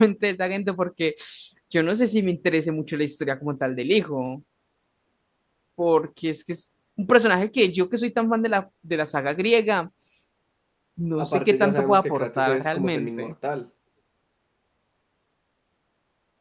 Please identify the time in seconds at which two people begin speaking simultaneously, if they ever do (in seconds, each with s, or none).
11.2 s